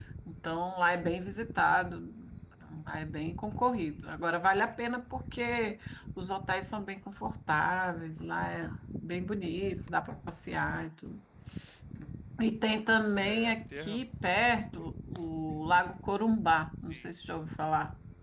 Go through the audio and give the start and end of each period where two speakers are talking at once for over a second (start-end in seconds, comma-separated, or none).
13.2-14.4